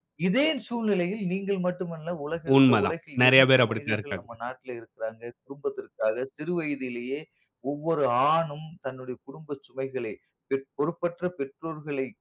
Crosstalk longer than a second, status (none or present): present